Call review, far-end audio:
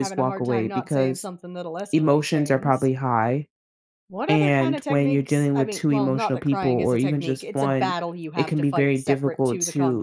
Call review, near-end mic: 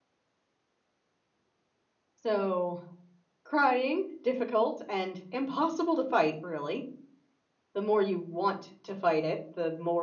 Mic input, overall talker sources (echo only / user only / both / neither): user only